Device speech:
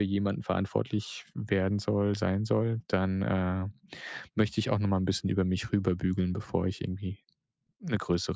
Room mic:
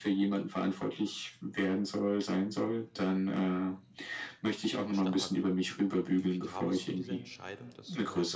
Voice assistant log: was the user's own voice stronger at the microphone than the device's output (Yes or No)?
No